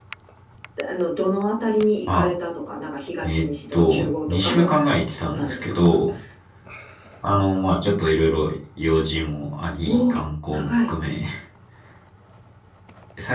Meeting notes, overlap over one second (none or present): present